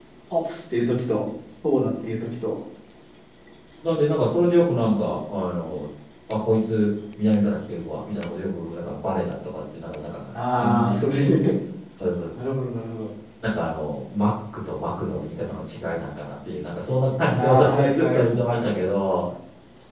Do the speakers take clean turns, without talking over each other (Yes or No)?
No